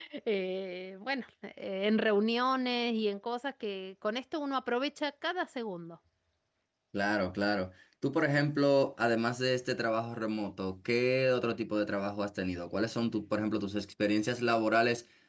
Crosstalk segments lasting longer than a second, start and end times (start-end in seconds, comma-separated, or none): none